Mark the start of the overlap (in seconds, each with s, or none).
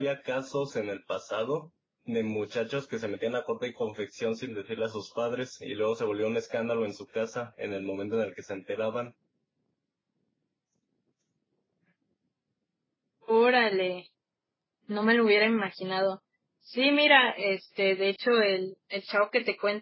none